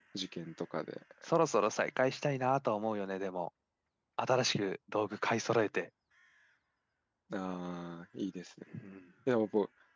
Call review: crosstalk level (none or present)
none